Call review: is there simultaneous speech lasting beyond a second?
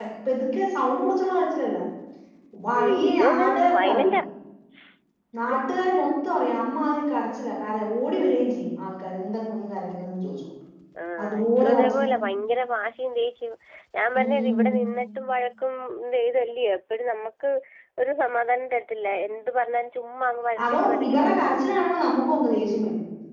Yes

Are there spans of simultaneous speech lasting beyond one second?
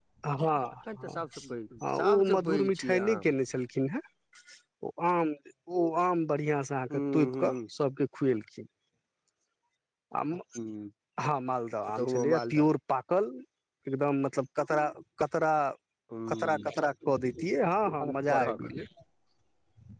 Yes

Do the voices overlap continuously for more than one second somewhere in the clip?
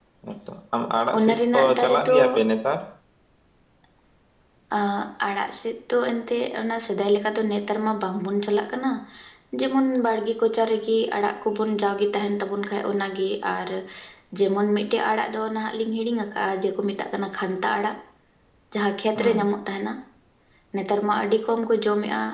Yes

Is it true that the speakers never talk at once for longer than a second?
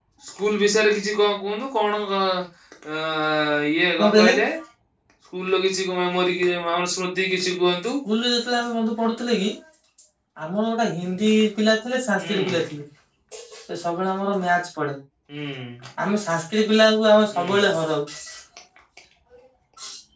Yes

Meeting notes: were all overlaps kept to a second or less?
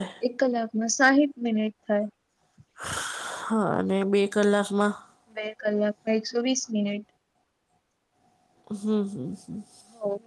Yes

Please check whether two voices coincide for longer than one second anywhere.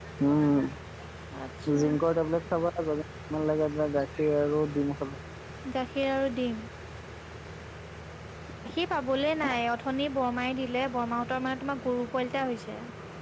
No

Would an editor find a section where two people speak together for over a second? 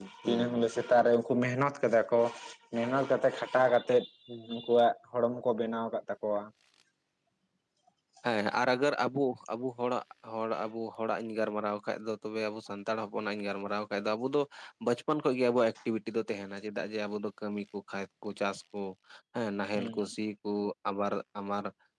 No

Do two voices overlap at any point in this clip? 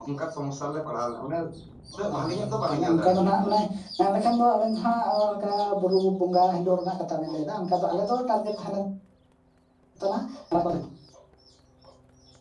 Yes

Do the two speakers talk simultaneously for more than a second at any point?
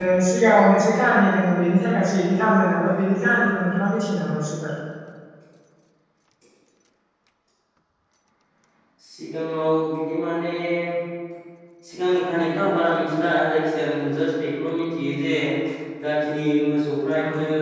No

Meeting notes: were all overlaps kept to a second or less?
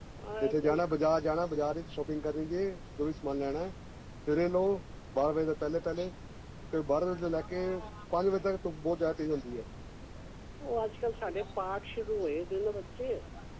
Yes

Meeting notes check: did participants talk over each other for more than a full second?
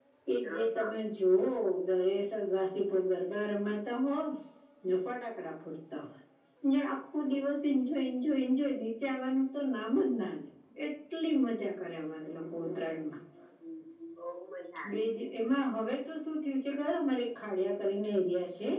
No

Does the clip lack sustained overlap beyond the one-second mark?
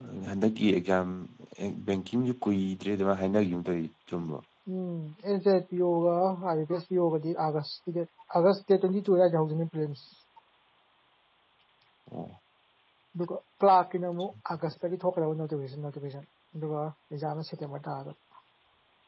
Yes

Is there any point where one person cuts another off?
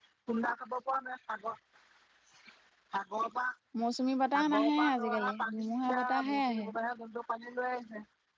Yes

